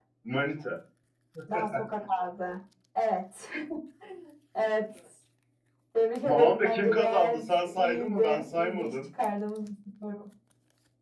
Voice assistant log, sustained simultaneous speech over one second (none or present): present